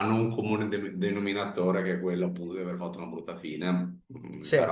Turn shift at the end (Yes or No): No